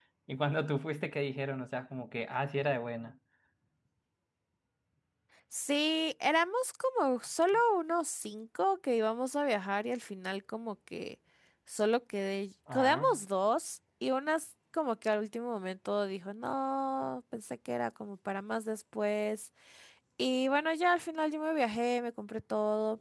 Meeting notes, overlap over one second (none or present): none